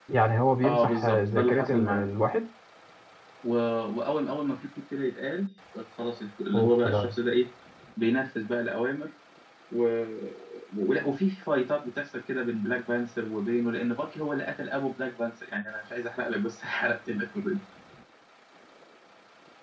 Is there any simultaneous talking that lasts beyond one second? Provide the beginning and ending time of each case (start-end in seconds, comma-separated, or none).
0.6-2.0